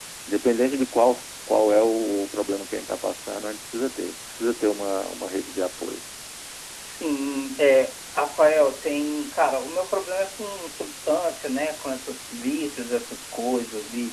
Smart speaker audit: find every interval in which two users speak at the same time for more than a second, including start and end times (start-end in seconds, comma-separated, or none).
none